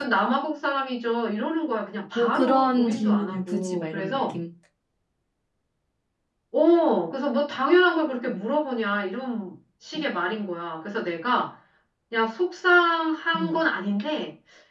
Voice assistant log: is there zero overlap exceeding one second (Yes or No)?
No